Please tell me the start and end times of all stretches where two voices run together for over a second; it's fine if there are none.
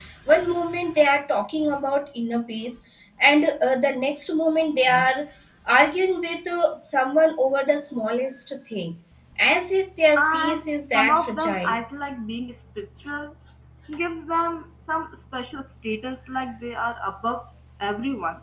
10.2-11.8

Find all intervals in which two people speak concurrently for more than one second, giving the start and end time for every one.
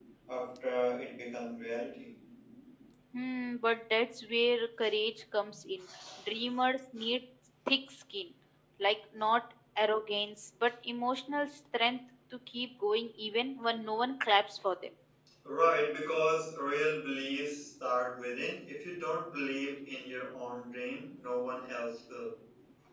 none

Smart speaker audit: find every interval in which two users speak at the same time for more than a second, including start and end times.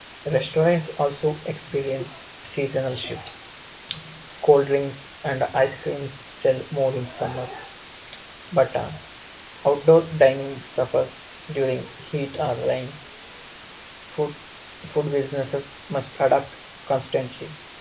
none

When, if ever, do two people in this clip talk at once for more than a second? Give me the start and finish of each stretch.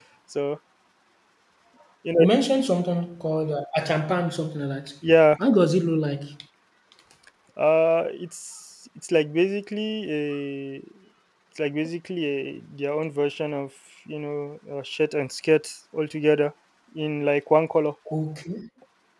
none

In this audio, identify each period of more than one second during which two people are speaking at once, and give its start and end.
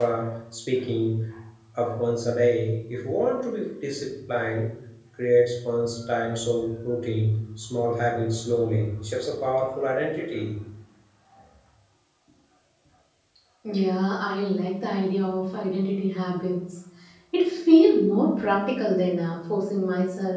none

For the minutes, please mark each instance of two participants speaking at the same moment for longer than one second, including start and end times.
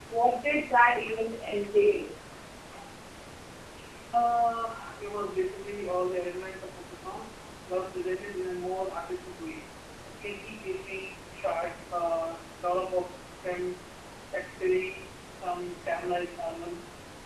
none

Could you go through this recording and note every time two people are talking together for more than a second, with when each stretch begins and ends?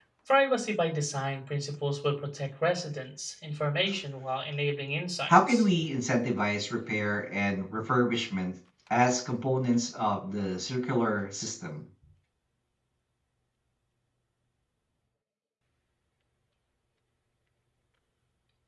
none

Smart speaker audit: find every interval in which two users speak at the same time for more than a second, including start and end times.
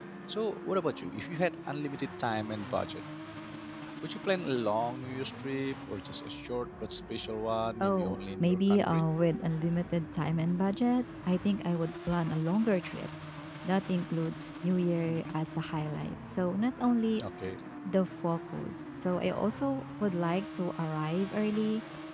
7.8-9.1

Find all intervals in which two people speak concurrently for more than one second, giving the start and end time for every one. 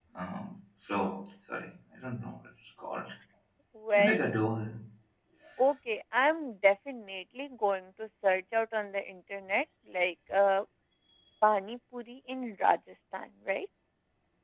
none

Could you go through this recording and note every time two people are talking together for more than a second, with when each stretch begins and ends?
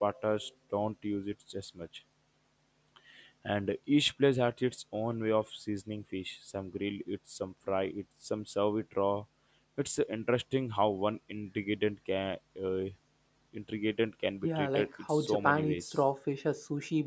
14.4-15.9

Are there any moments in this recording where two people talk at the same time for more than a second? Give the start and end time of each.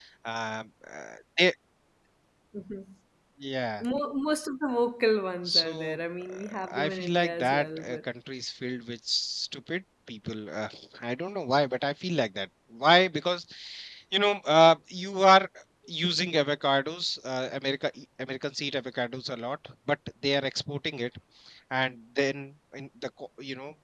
5.4-8.0

